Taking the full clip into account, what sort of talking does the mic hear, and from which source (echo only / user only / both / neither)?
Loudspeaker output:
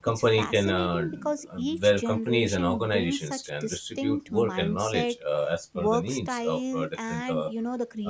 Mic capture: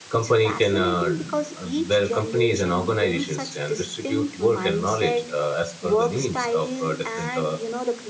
echo only